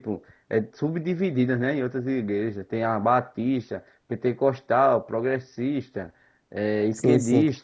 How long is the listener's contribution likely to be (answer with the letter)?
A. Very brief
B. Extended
B